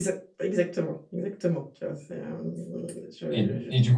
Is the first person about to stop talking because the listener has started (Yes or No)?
Yes